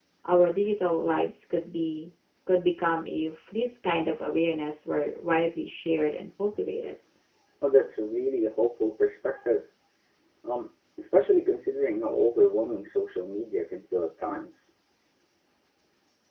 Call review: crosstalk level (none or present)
none